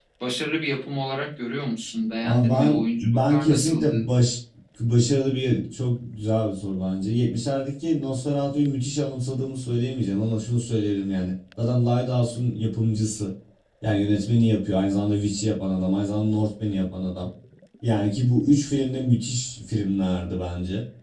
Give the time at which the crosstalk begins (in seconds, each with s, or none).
2.2 s